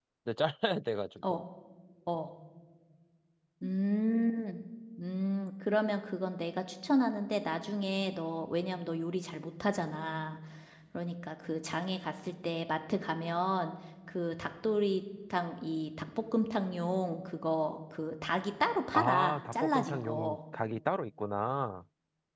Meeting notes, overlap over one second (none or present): present